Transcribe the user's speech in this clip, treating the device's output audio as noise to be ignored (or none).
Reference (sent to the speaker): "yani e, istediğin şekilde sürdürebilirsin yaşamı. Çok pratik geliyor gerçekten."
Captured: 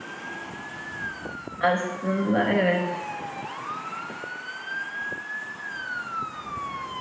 aslında evet.